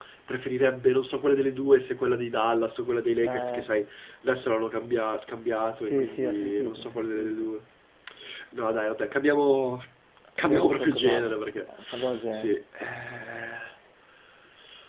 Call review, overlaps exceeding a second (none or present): present